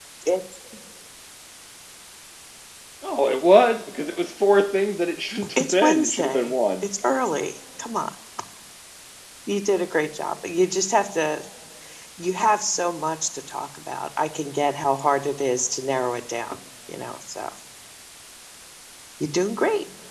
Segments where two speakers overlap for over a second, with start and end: 5.6-6.8

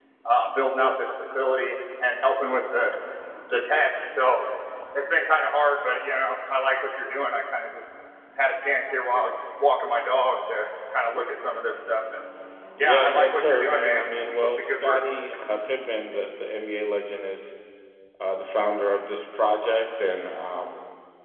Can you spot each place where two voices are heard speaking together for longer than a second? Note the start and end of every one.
12.8-15.0

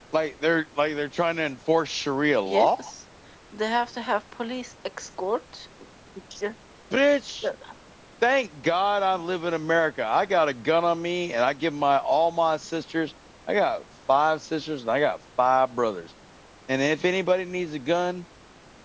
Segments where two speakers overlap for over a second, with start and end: none

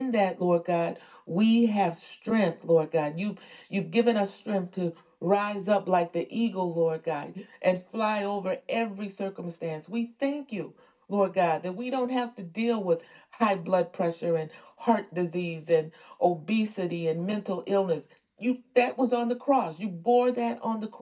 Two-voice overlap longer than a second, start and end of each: none

